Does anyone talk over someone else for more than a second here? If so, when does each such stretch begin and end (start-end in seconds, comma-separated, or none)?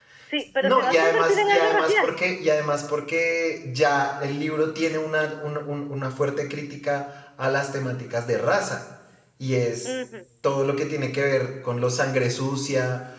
0.6-2.1